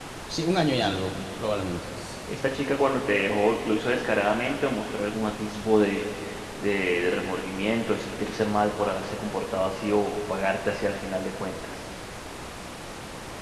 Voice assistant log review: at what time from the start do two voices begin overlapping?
none

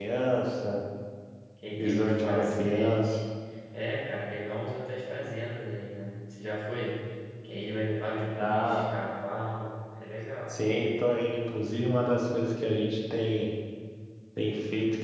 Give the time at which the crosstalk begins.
1.8 s

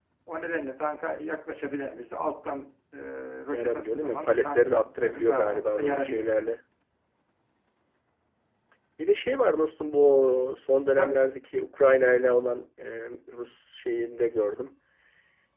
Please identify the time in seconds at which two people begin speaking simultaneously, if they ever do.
3.5 s

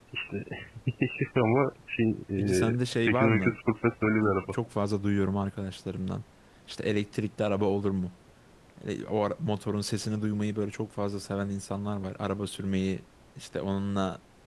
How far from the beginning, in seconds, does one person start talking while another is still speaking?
2.4 s

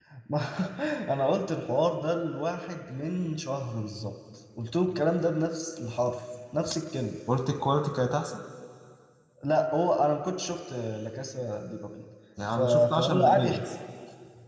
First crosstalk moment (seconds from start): 12.5 s

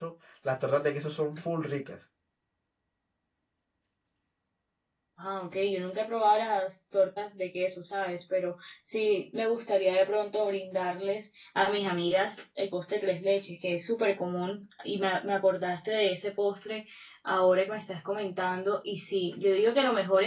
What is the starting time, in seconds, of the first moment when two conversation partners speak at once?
none

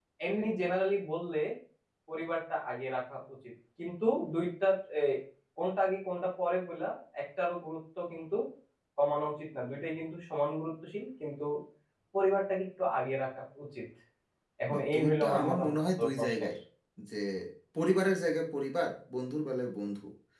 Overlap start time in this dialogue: 14.7 s

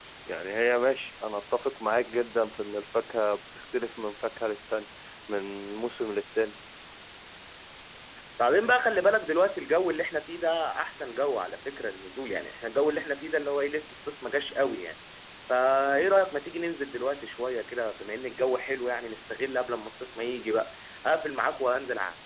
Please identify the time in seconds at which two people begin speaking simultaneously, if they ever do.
none

